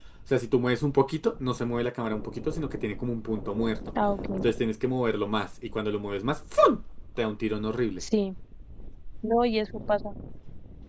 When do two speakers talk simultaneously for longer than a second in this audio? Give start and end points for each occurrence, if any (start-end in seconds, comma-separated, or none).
none